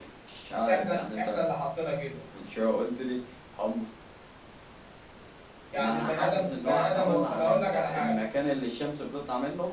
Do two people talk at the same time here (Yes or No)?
Yes